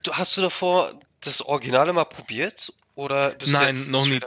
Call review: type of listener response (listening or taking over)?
taking over